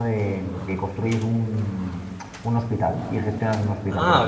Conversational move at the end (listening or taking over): taking over